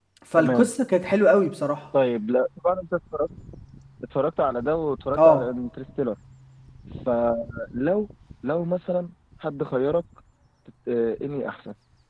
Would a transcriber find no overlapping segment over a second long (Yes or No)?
Yes